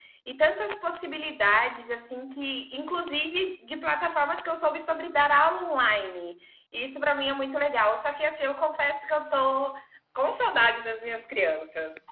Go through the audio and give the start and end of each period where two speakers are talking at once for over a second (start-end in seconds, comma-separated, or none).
none